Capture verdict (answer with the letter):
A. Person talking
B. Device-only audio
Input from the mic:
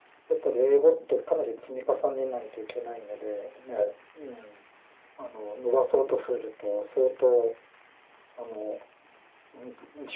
B